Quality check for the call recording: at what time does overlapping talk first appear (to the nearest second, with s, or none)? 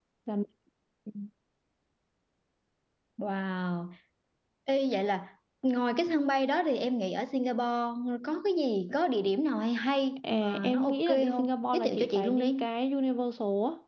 10 s